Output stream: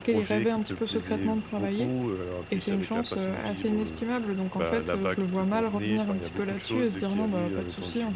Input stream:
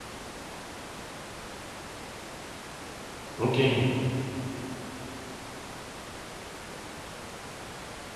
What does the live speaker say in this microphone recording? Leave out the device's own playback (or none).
OK,